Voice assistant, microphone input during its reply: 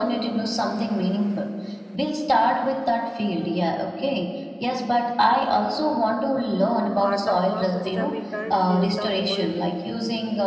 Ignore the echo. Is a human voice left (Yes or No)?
Yes